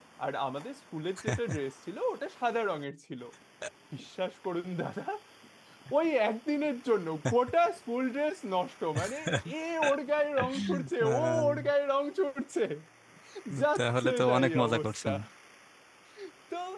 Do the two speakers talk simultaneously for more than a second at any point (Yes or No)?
Yes